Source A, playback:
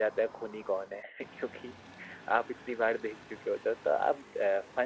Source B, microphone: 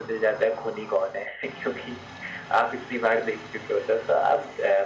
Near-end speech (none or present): none